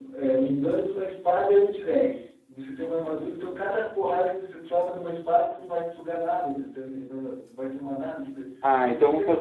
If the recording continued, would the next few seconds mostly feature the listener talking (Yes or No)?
Yes